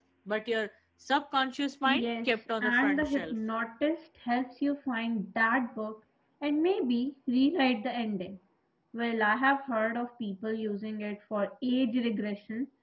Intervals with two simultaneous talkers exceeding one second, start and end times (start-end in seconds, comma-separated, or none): 1.9-3.3